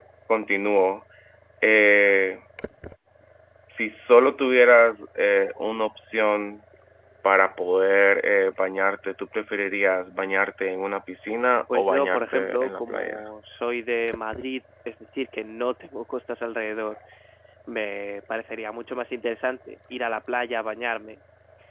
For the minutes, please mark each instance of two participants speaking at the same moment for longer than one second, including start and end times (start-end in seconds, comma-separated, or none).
11.7-13.3